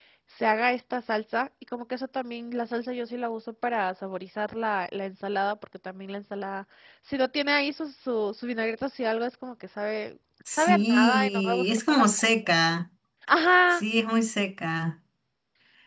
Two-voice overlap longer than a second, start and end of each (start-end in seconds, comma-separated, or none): 10.5-12.3